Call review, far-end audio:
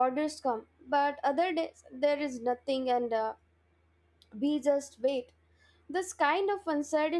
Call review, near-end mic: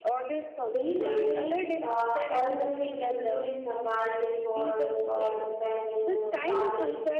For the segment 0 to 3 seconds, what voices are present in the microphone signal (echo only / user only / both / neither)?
both